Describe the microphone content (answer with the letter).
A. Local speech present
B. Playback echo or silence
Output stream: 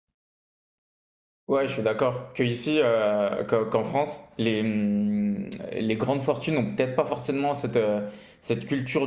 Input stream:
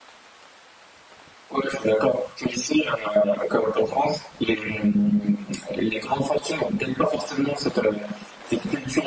B